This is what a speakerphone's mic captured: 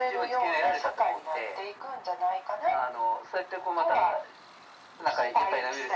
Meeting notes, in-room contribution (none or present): none